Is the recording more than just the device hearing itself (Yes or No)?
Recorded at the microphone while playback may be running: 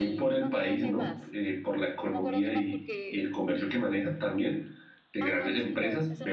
Yes